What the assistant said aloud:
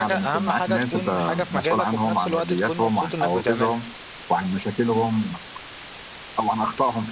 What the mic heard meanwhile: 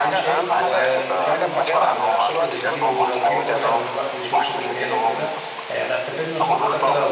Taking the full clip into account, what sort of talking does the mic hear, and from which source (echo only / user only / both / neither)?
both